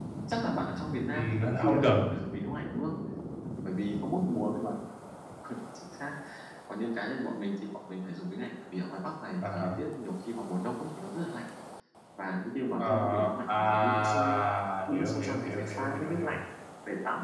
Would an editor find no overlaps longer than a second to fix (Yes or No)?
No